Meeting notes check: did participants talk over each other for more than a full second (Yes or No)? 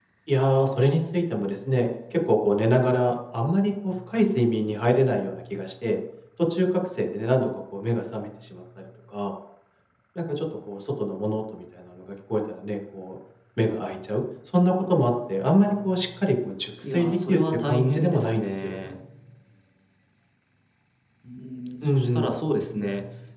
Yes